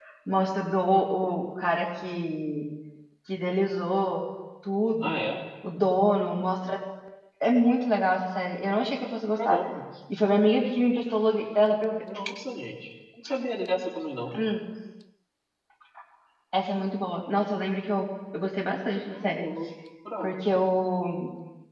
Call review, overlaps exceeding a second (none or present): none